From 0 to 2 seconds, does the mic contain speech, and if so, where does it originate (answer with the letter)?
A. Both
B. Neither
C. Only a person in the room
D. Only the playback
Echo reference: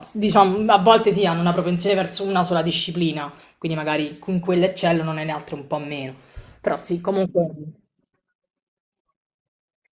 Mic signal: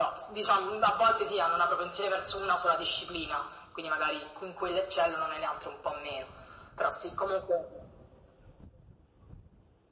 D